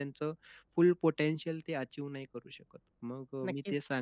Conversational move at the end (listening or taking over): listening